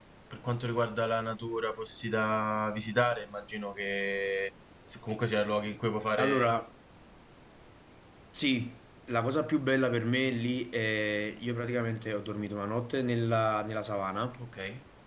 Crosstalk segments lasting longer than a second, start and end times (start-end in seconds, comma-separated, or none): none